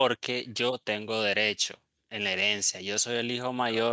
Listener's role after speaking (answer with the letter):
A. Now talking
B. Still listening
B